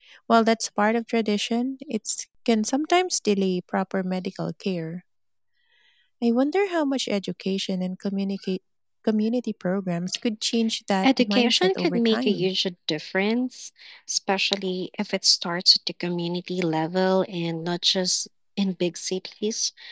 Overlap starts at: 11.0 s

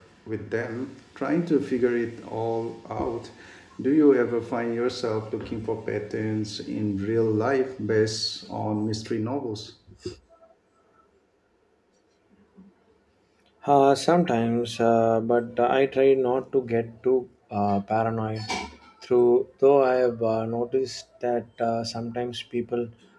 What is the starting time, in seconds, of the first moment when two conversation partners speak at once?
none

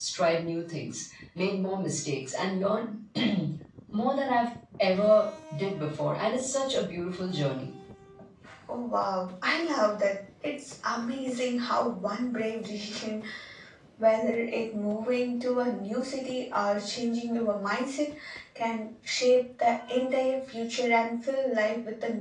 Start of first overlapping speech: none

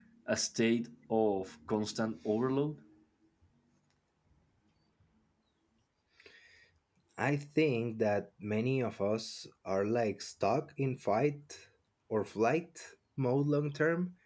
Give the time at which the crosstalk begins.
none

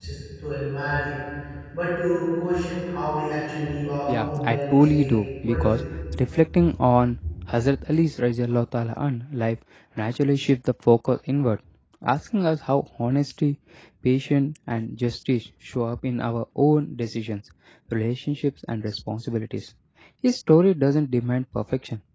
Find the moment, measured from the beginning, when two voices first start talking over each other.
4.1 s

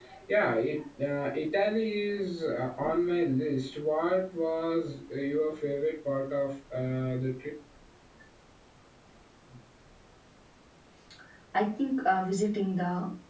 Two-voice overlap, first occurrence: none

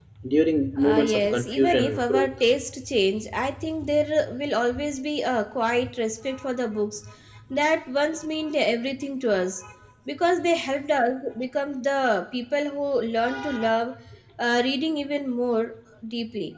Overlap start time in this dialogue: 0.8 s

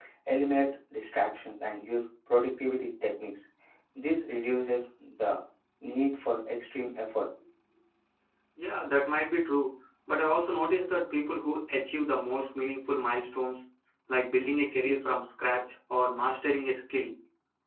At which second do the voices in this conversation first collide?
none

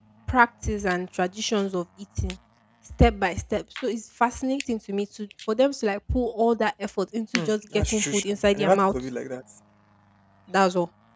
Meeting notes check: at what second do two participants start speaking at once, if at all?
7.3 s

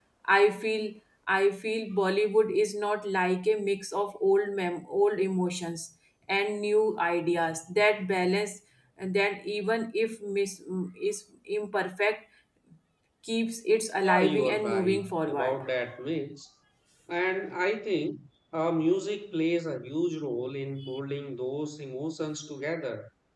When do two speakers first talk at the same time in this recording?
14.0 s

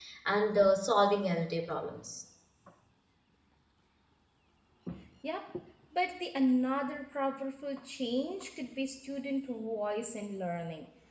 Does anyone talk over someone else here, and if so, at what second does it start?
none

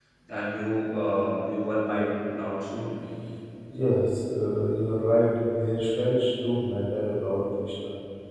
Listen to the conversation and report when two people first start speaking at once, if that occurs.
none

